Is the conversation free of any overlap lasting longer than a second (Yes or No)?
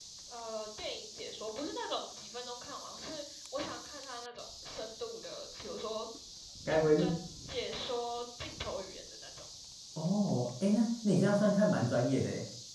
Yes